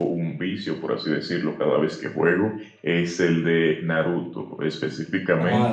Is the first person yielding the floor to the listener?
No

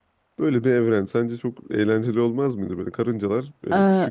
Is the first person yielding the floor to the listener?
No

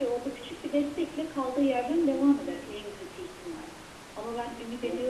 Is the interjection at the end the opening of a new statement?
No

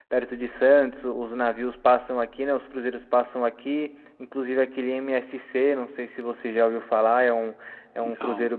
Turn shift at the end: No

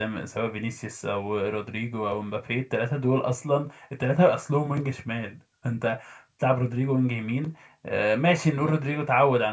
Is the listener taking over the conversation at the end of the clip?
No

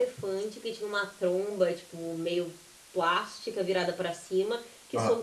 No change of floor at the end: Yes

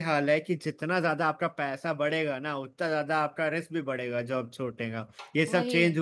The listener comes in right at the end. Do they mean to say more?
No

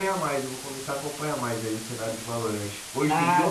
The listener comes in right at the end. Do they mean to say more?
Yes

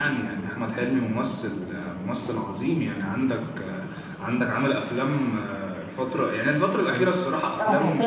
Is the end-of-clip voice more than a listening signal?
Yes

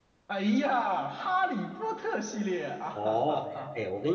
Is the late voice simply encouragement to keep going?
No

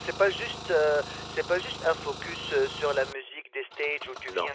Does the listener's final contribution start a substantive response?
No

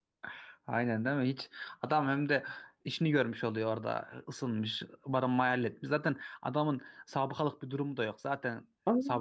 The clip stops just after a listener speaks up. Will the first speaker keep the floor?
No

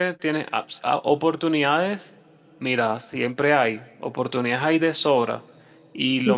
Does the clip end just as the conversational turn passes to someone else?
No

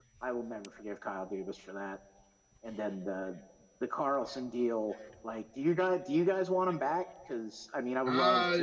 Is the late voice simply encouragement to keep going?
No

